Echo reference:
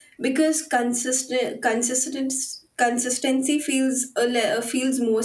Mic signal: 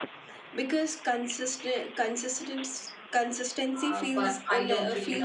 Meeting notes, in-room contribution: present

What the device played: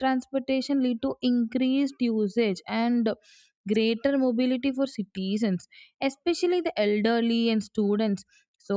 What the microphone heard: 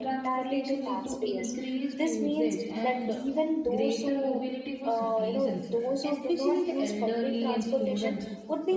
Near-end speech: present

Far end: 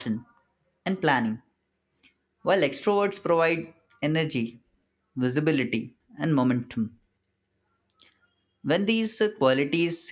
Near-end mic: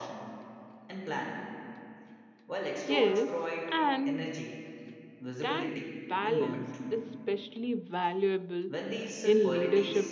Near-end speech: present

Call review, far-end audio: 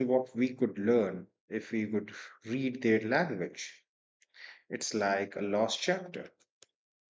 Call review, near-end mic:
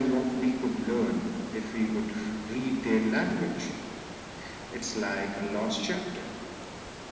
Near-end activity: none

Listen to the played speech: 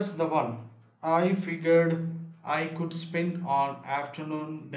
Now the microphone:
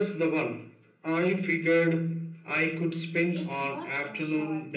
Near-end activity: present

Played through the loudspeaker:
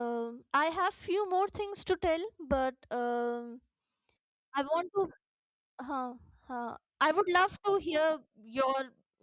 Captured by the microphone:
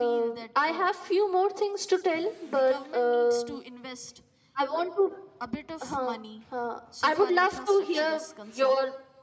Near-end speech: present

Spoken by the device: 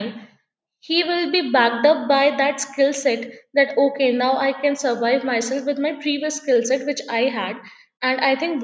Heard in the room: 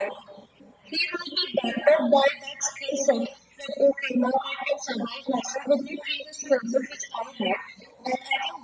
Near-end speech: none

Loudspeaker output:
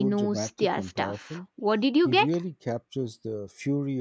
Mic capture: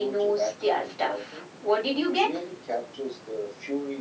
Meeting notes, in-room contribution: none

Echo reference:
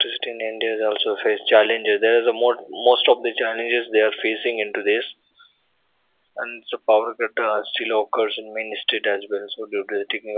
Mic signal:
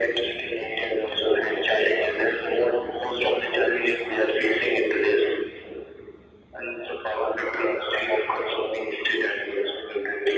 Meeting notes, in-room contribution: none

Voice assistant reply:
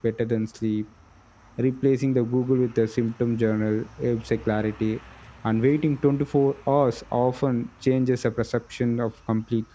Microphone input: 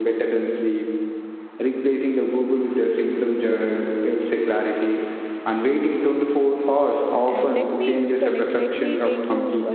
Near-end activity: present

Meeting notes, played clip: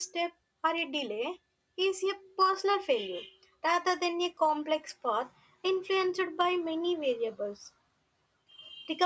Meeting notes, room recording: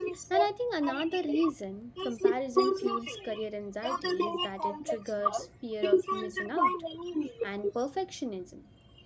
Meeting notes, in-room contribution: present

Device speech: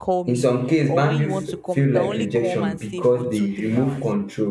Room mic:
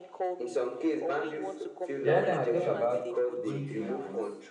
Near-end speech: present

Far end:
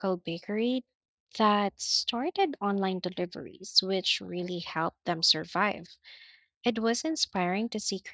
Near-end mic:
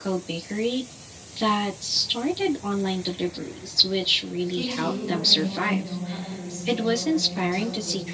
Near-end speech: present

